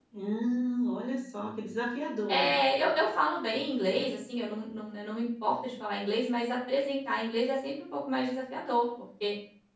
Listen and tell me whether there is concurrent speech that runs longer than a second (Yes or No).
No